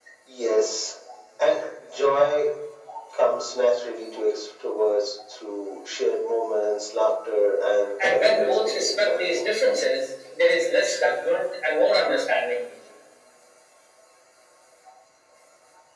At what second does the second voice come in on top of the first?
8.0 s

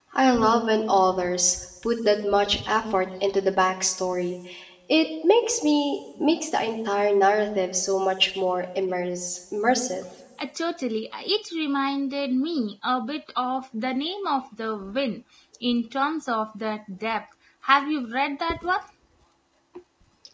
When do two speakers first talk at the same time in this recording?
none

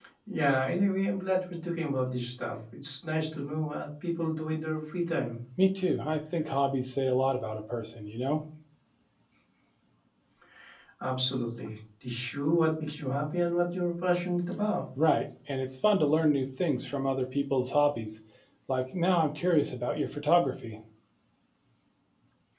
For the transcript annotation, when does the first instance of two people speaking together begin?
none

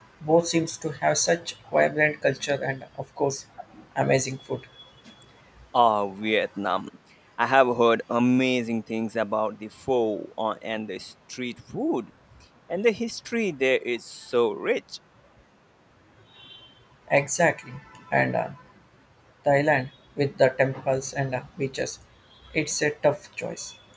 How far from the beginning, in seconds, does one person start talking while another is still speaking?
none

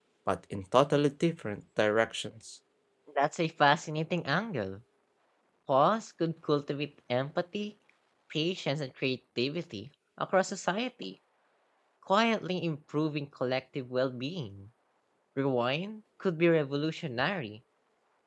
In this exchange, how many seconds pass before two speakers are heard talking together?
none

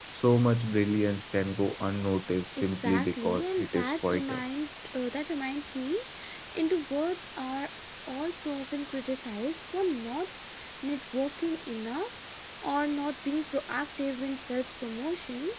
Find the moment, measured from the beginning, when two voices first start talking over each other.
2.6 s

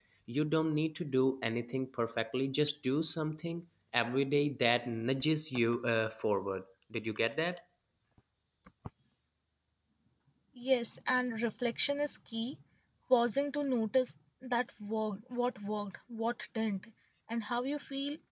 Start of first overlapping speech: none

